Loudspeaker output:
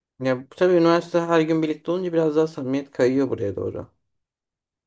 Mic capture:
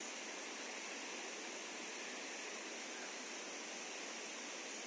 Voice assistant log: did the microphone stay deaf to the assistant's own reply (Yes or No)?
Yes